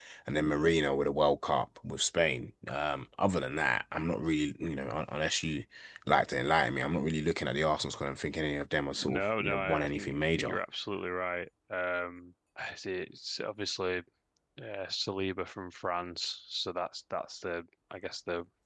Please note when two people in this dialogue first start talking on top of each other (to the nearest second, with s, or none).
9 s